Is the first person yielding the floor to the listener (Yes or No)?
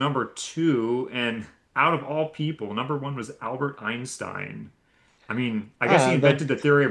No